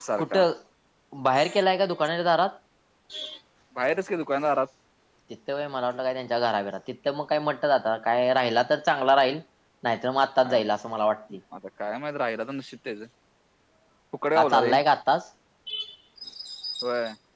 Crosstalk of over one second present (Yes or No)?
No